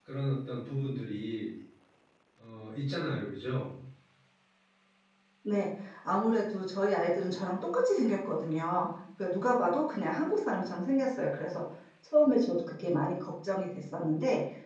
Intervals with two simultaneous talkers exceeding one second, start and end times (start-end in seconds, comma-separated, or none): none